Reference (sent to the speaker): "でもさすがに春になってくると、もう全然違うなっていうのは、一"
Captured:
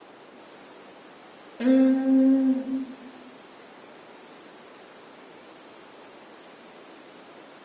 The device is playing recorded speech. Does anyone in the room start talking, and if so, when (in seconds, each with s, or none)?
1.6 s